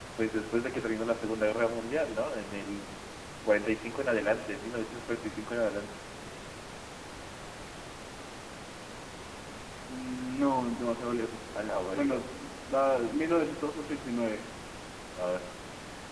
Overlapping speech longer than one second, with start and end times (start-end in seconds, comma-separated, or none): none